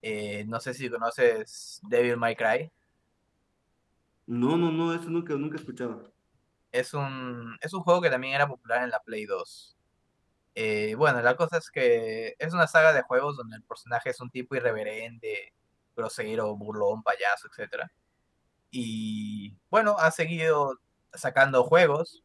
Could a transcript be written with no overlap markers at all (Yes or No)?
Yes